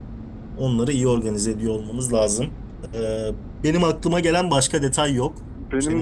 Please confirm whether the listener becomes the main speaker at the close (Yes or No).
Yes